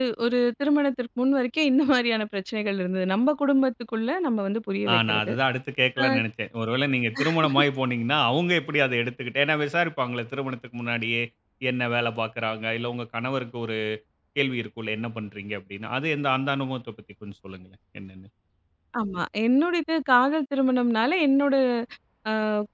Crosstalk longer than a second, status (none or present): none